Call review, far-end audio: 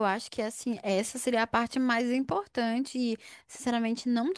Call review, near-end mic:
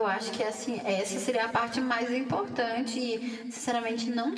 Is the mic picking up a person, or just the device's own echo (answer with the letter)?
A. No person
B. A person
A